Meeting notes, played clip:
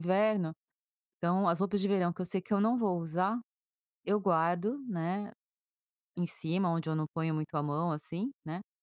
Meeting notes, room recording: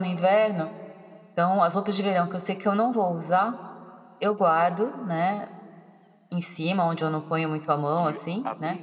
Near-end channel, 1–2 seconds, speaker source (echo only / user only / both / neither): echo only